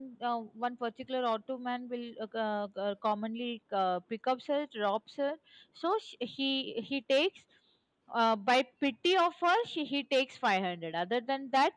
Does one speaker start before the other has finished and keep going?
No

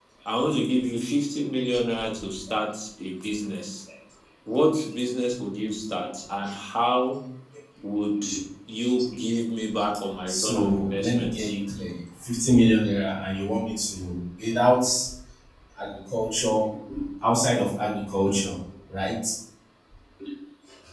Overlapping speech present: Yes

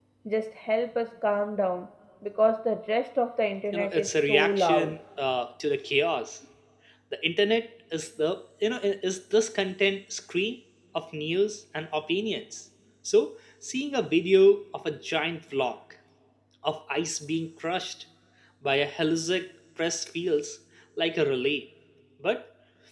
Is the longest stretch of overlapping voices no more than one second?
No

